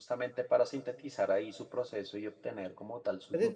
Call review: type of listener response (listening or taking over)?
taking over